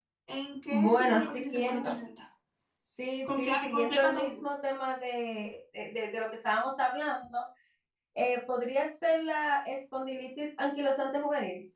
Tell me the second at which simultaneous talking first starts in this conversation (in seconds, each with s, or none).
0.7 s